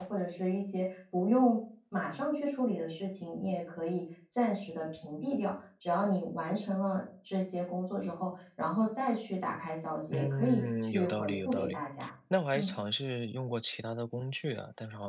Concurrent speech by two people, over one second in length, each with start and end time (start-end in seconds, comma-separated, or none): 10.1-11.8